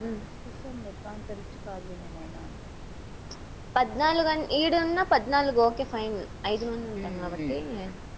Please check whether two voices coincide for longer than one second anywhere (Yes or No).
No